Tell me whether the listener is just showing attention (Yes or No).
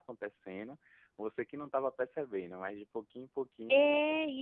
No